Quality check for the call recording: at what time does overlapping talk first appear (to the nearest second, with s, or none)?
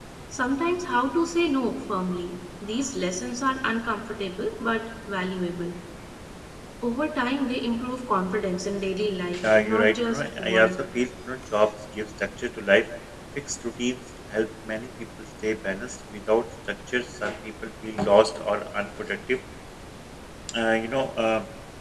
9 s